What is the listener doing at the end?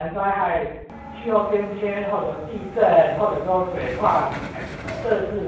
listening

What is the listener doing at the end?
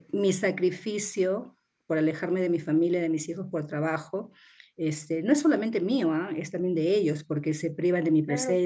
listening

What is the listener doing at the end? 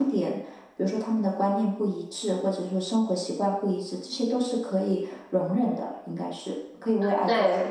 taking over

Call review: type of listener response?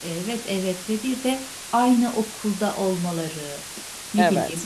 listening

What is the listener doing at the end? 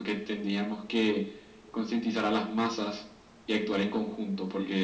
listening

